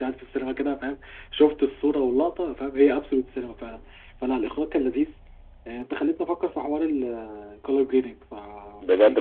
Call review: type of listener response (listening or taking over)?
taking over